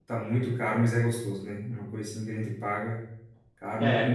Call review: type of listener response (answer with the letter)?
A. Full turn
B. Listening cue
A